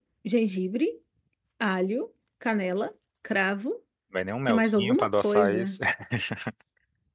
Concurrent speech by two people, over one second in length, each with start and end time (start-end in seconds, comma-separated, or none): 4.5-5.8